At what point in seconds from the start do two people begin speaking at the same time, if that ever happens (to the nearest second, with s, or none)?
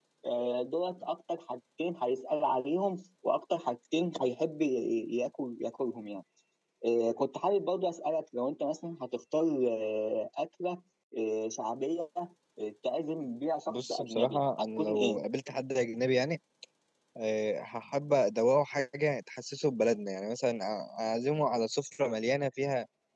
14 s